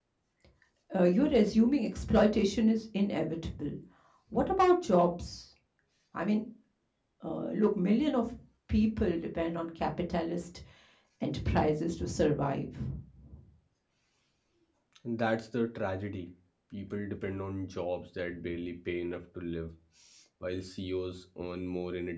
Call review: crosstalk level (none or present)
none